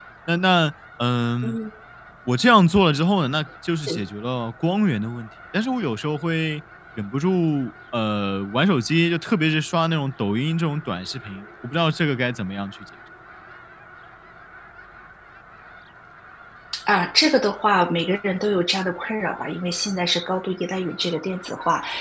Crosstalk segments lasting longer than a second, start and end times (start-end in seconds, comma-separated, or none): none